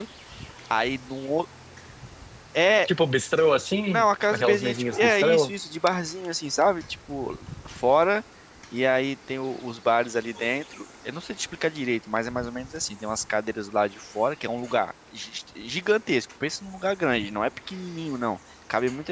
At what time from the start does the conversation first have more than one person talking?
3.9 s

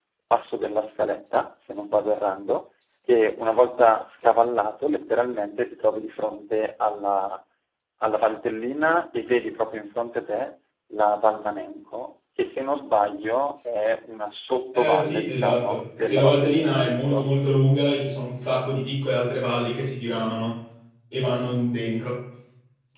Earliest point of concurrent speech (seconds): 14.7 s

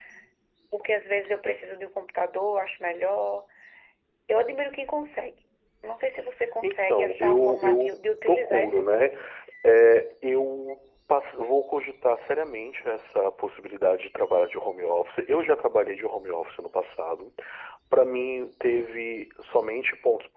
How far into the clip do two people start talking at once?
6.6 s

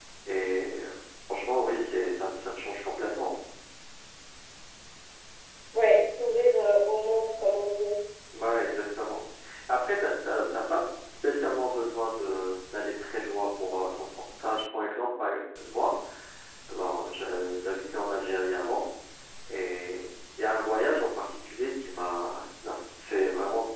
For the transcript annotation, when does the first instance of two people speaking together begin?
none

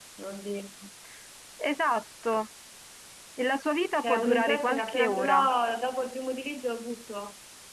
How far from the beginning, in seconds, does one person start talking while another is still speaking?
3.9 s

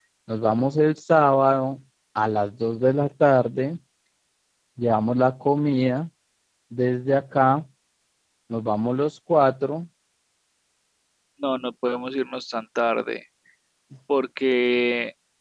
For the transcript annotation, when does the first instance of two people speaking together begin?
none

